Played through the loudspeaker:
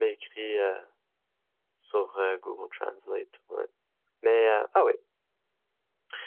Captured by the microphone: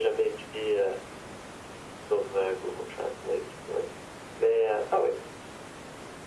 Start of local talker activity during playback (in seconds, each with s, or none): none